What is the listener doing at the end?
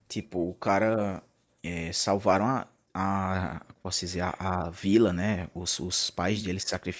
listening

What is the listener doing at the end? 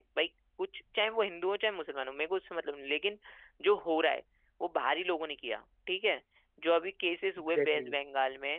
listening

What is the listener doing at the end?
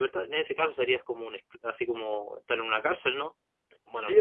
taking over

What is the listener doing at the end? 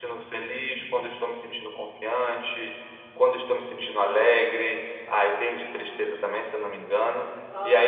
taking over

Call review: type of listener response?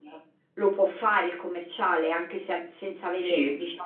taking over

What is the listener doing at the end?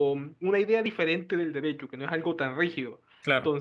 listening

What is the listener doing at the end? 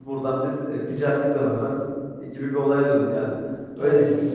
listening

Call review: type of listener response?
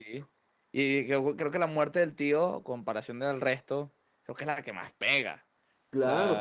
taking over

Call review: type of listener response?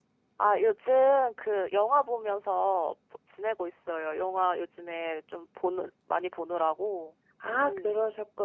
taking over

